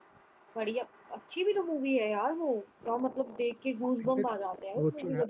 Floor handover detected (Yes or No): Yes